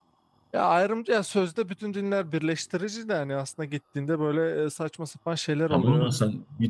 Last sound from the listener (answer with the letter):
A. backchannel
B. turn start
B